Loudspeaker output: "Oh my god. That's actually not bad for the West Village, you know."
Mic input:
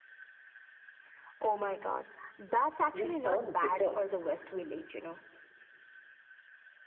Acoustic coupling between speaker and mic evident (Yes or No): Yes